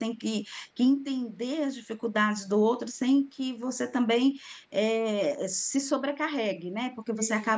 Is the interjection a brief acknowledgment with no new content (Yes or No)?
Yes